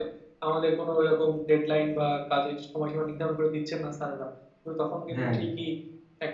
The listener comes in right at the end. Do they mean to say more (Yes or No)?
No